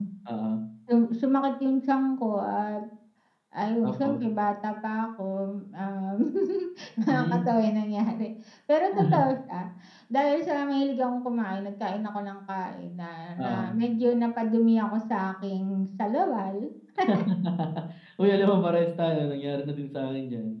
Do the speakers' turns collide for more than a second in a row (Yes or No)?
No